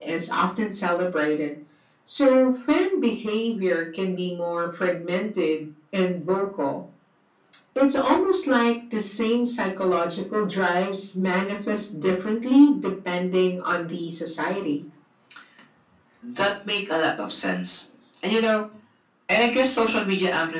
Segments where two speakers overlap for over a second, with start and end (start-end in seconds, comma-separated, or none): none